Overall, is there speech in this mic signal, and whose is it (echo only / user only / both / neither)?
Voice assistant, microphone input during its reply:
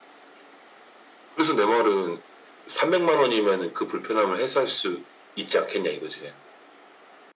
echo only